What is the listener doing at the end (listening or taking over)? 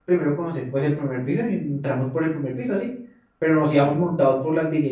listening